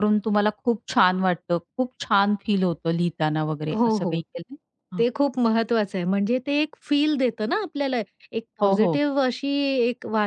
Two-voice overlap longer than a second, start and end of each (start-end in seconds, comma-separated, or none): none